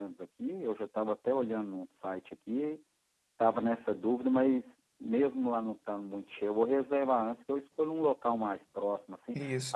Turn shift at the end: No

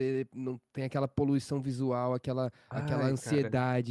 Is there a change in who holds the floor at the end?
No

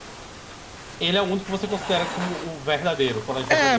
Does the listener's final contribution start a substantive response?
Yes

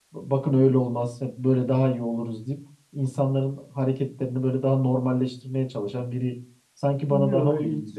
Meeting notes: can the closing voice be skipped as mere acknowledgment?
No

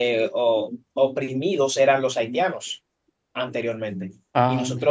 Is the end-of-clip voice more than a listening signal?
No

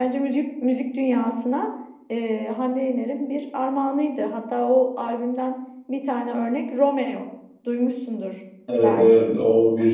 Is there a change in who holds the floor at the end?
Yes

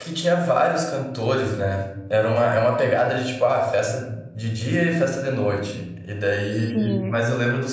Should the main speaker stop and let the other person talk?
No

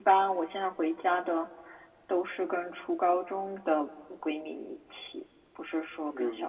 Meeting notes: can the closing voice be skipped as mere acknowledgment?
No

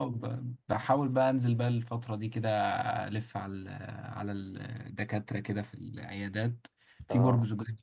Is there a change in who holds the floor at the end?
No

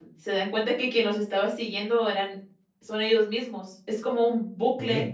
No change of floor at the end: Yes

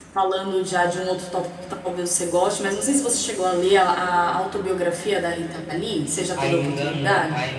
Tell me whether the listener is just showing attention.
No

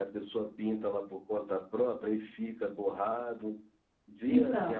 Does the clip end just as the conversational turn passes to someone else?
Yes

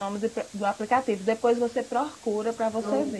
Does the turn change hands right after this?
Yes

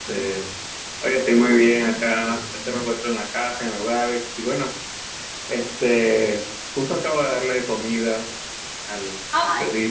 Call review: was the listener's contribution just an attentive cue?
No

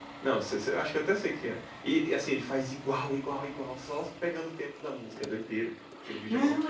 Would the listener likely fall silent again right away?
No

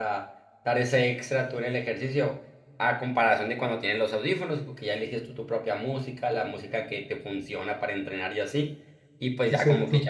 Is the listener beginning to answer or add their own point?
No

